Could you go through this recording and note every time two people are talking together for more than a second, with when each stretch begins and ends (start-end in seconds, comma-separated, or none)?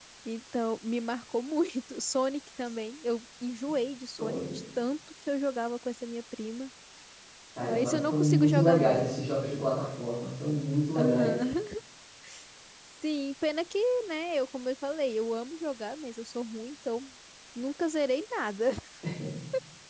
7.6-9.1